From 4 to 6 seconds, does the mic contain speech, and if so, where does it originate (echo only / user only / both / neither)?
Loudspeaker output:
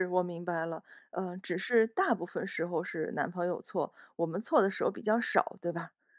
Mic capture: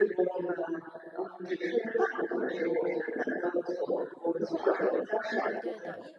both